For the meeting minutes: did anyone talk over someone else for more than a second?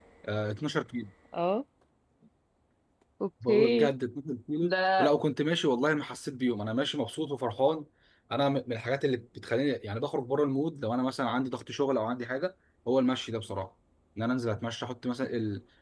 No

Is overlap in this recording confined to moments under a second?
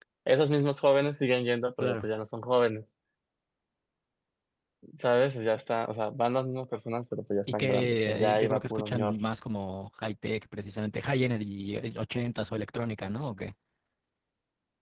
No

